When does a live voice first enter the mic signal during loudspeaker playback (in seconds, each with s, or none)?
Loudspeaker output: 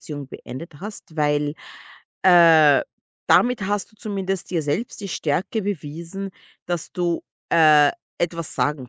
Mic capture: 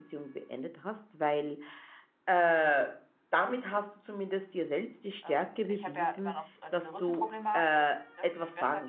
5.2 s